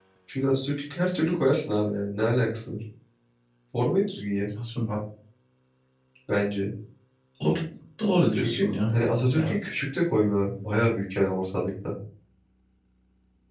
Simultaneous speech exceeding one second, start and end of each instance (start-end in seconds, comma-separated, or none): none